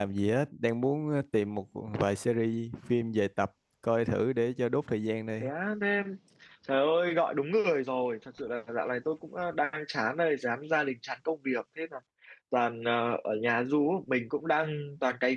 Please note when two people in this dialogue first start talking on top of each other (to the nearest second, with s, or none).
none